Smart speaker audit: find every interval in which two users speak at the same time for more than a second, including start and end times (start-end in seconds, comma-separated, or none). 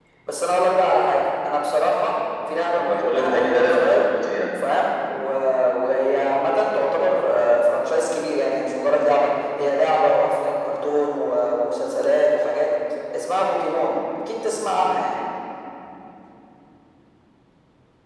2.7-4.0